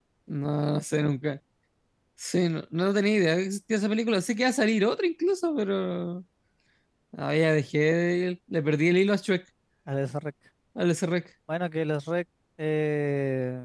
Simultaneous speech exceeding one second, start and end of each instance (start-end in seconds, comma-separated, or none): none